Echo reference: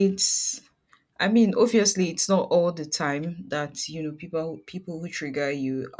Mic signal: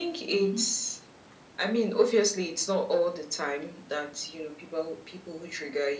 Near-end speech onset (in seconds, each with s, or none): 0.3 s